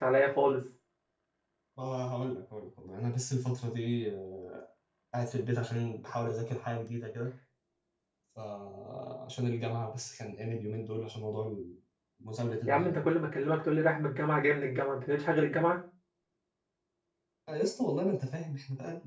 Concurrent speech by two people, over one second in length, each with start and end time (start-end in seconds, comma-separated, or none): none